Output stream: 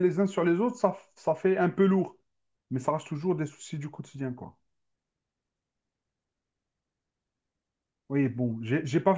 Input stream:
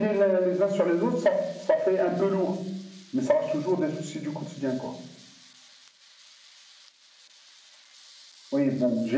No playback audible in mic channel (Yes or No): No